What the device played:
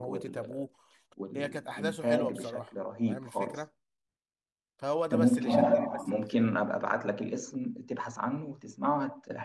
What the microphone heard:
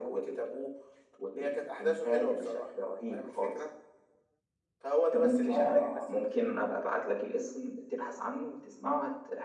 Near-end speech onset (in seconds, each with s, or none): none